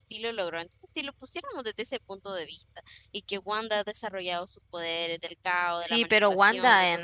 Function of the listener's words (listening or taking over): taking over